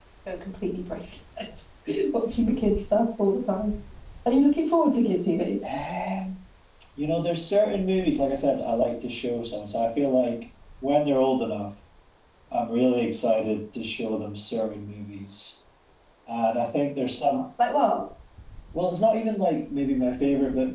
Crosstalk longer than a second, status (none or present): none